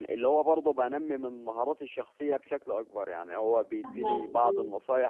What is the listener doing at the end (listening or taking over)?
listening